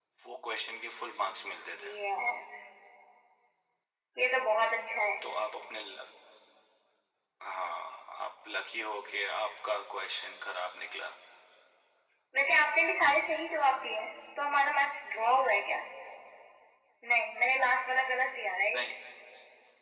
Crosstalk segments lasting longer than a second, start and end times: none

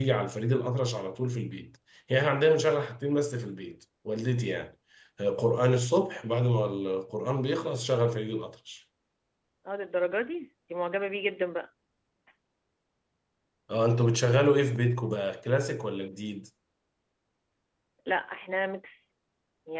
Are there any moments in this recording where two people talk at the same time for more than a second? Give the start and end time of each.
none

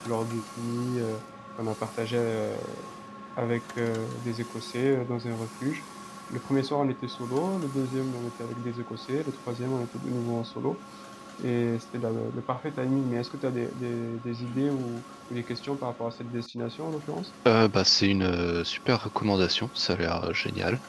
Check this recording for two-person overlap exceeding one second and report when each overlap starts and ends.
none

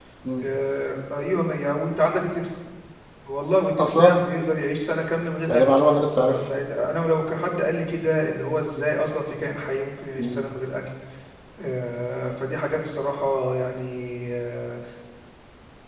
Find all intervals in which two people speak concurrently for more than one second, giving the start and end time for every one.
none

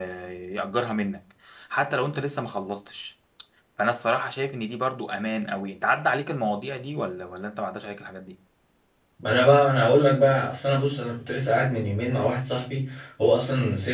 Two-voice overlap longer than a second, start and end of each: none

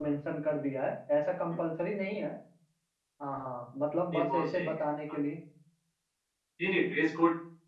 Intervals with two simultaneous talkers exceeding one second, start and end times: none

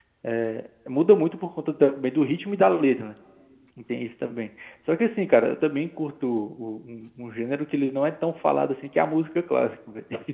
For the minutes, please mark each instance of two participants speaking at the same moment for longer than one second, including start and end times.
none

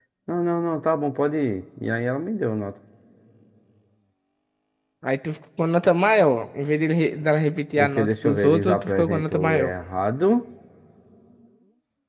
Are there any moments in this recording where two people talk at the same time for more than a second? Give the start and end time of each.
7.8-9.7

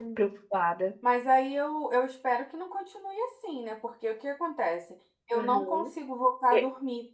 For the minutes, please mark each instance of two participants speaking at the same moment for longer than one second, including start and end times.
none

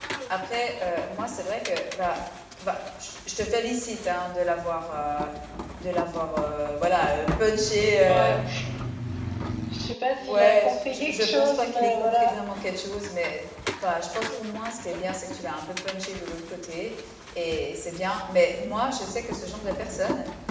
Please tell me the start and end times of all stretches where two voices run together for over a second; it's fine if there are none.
10.2-12.3

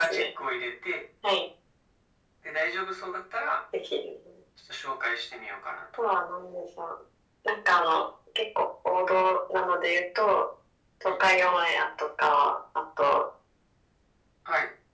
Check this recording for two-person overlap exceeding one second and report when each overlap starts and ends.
none

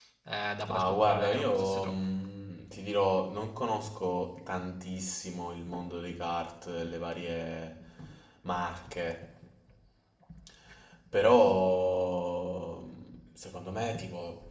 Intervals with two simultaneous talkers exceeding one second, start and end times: 0.7-1.9

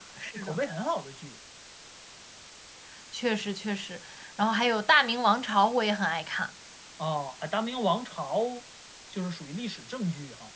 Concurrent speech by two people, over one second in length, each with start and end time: none

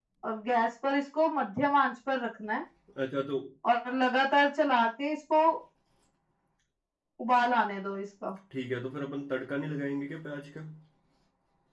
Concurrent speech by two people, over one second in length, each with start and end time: none

